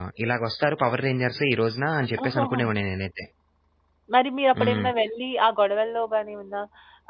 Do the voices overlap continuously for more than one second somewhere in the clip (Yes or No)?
No